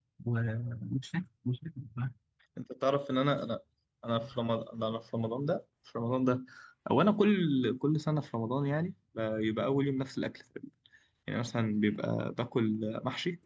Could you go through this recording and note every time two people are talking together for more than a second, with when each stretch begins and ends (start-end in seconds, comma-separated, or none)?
none